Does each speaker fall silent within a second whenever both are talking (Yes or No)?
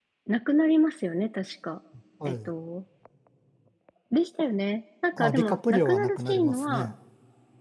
No